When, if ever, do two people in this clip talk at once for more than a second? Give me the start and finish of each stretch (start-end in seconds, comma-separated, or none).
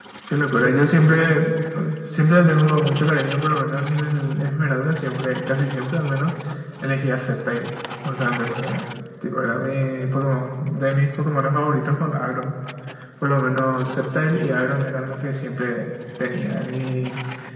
none